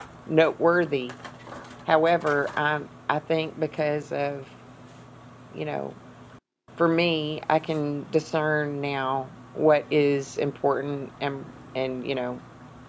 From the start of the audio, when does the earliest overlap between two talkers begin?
none

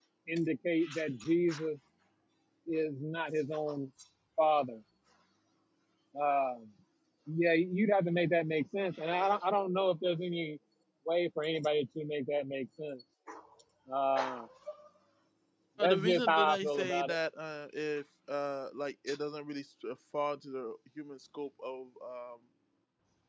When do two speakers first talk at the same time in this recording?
15.8 s

